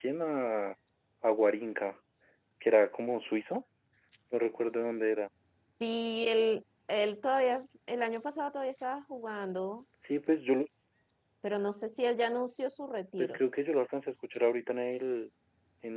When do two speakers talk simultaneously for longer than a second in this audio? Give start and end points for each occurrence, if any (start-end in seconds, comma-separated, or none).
none